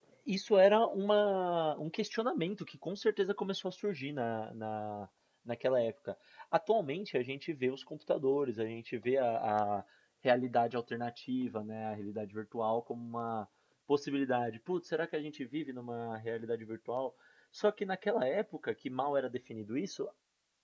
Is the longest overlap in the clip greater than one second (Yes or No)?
No